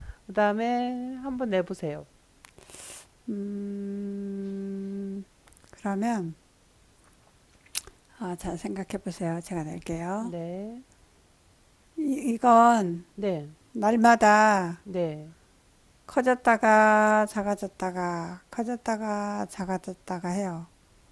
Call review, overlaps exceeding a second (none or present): none